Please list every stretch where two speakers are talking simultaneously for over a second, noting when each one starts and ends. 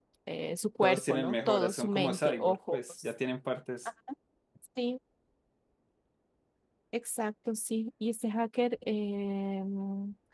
0.8-3.1

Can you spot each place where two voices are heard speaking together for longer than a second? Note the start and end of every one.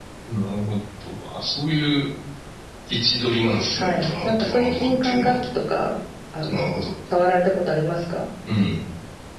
3.7-5.4

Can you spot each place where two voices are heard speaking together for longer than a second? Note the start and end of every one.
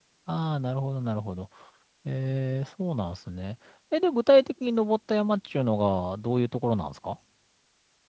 none

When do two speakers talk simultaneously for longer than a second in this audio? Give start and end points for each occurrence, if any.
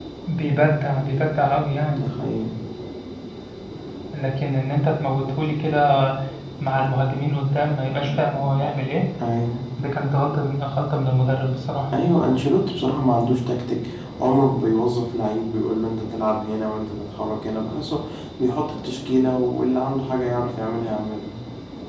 none

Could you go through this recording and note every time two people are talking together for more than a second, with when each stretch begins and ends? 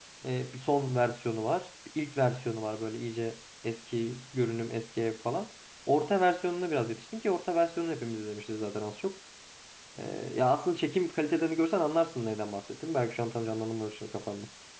none

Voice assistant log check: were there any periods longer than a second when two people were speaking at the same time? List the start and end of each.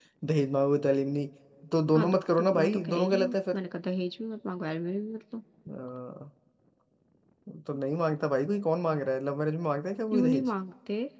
1.9-3.6

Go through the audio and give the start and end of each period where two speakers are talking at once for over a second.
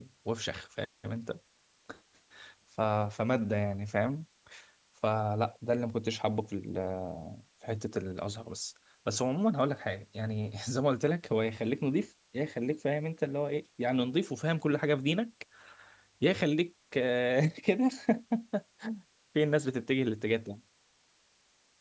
none

